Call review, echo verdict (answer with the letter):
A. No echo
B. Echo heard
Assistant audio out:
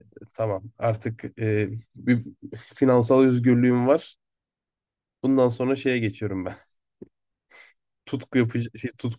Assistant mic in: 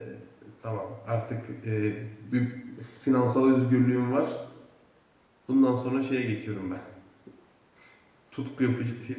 B